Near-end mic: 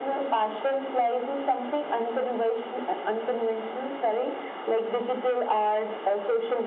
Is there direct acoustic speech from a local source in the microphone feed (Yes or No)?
No